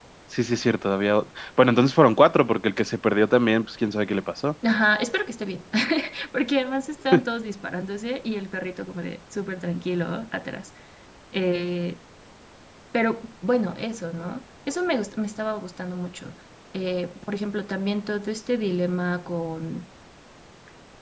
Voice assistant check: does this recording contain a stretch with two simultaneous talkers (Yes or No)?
No